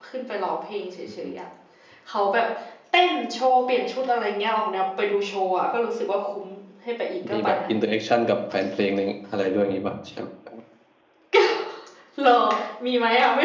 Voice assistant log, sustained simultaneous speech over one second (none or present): none